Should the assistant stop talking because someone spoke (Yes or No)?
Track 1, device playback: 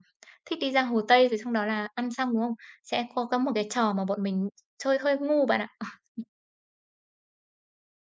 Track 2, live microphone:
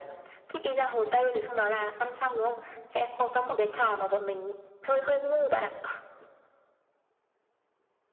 No